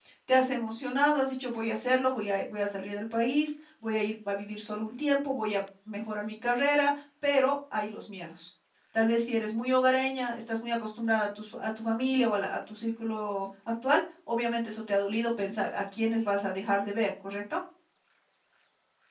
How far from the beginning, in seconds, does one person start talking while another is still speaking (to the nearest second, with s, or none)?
none